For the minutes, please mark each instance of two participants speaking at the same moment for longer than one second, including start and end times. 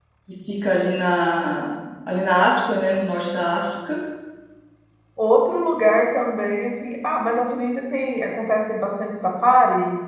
none

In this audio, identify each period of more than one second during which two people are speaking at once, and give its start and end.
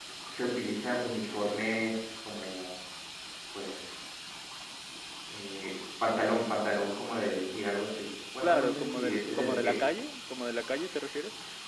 8.4-9.7

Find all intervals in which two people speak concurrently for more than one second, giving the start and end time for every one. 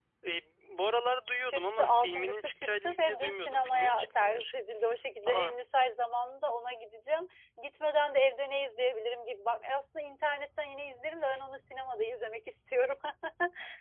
1.5-4.4

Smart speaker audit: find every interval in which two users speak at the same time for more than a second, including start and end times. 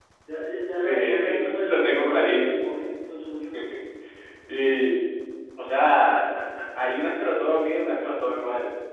0.8-2.7

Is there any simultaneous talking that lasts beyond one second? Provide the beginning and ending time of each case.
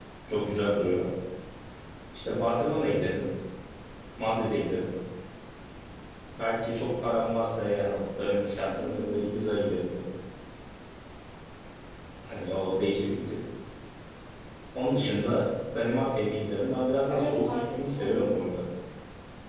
17.1-18.3

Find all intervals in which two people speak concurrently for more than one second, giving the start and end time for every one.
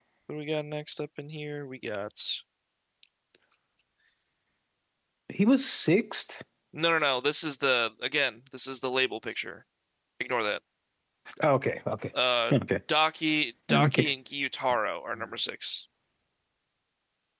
none

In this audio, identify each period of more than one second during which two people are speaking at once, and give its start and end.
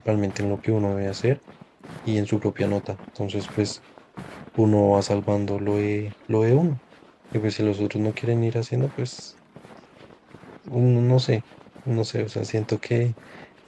none

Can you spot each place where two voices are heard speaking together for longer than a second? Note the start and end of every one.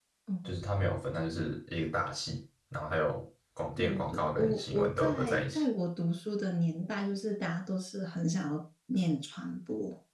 3.8-5.6

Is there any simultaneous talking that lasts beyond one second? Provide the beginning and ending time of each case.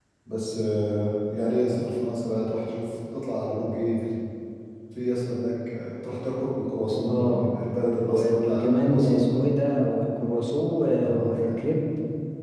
8.1-9.3

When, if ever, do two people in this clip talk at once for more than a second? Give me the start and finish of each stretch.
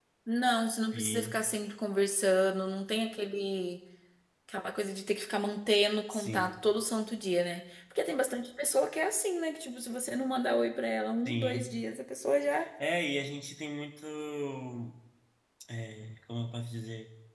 none

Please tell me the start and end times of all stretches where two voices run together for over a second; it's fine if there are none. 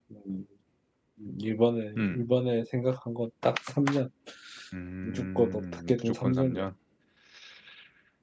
5.0-6.7

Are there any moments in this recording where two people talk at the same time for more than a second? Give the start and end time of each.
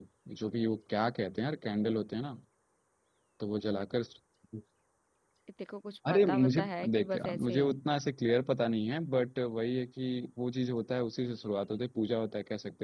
6.1-7.8

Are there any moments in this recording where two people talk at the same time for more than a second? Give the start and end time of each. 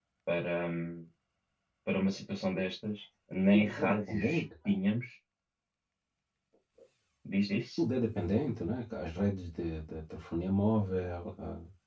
3.5-4.8

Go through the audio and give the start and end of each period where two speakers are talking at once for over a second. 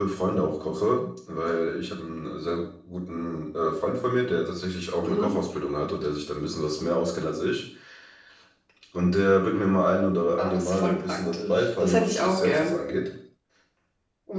10.4-12.8

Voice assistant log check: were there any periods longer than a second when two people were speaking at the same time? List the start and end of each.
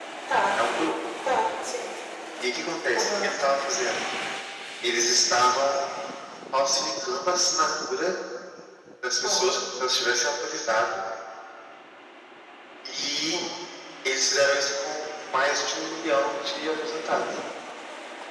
none

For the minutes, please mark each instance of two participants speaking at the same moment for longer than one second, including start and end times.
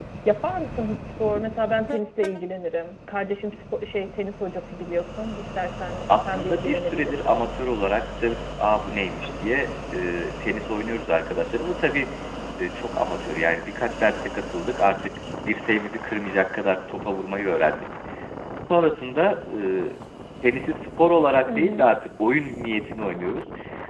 6.2-7.5

